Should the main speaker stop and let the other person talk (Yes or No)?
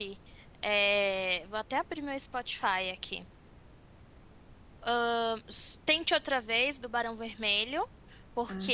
No